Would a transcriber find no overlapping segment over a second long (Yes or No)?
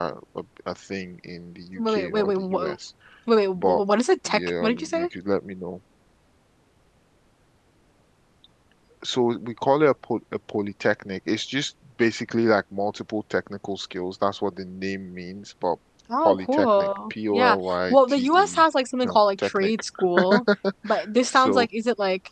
No